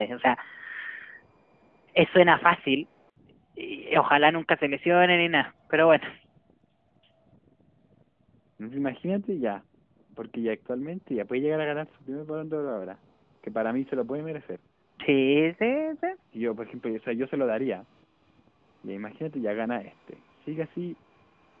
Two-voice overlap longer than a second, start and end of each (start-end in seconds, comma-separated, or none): none